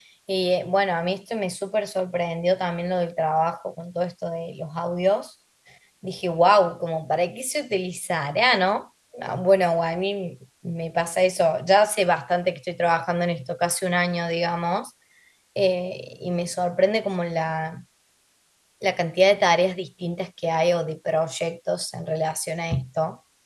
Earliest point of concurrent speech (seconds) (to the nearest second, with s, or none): none